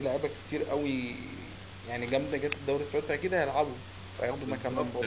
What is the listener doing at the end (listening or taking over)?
taking over